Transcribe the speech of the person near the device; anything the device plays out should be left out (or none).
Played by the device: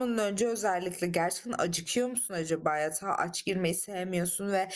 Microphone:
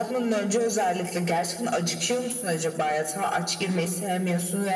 none